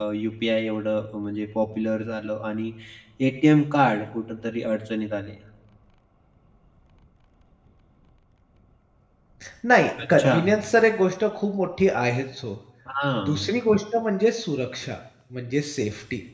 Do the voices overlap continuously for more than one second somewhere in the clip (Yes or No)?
No